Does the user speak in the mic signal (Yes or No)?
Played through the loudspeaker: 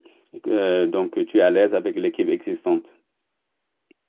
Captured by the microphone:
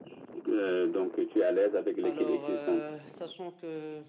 Yes